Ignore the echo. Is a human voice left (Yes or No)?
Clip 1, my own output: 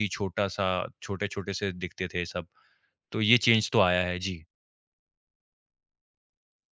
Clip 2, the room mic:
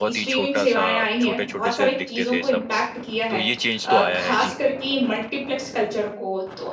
Yes